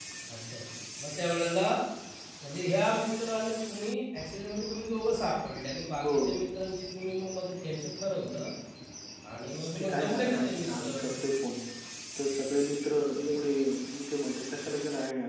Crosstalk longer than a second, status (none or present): present